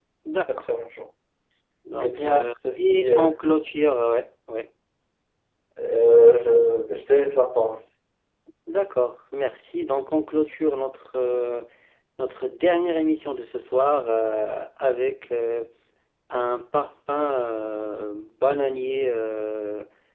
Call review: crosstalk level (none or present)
present